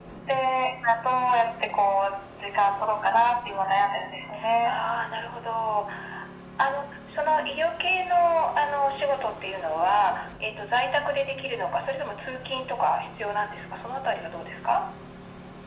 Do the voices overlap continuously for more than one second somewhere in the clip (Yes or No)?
No